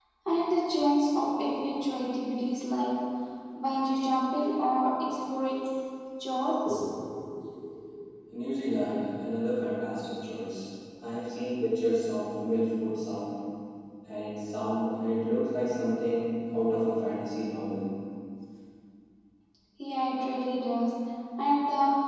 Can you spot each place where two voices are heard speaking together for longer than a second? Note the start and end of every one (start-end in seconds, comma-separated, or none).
none